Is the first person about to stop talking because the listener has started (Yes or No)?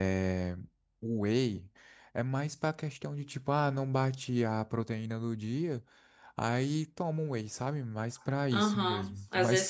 Yes